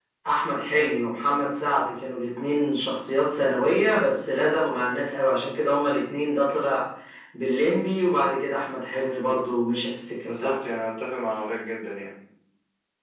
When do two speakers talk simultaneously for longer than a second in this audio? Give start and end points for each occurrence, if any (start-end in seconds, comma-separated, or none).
none